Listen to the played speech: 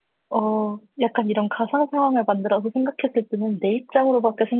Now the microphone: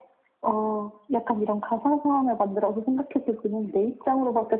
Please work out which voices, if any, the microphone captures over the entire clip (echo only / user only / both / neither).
echo only